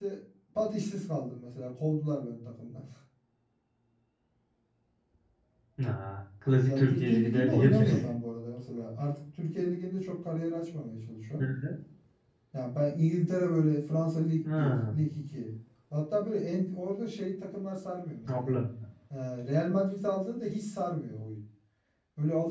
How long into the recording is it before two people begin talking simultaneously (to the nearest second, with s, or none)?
7 s